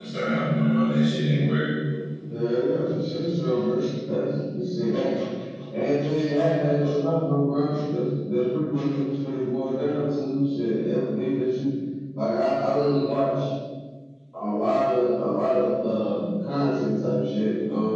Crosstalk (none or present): none